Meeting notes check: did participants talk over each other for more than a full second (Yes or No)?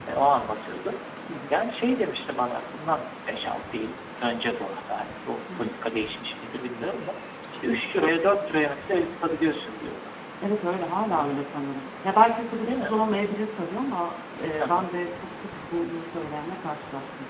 No